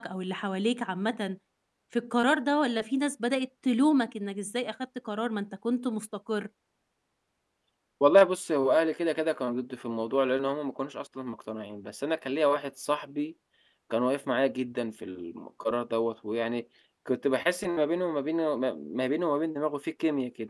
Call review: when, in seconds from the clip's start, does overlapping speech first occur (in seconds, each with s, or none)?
none